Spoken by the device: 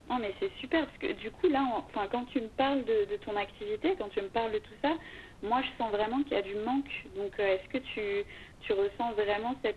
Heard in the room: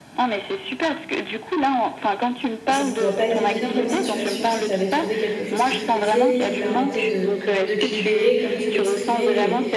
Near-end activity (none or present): present